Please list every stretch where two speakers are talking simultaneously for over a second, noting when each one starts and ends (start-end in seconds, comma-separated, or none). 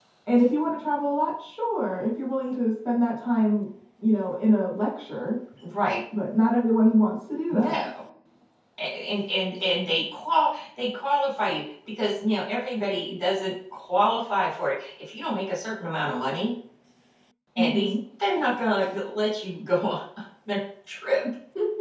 none